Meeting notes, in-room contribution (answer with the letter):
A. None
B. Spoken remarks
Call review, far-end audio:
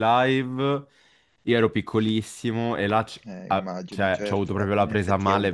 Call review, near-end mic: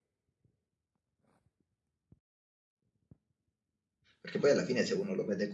B